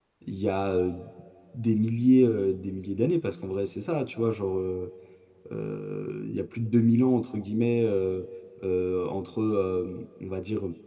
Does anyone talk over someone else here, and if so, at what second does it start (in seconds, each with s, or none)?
none